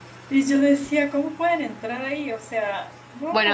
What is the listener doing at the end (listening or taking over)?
taking over